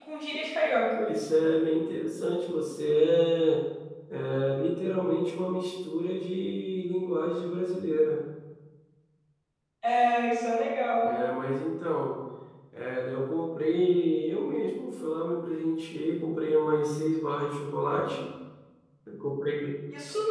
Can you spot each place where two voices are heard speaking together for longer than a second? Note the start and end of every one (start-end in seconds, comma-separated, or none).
none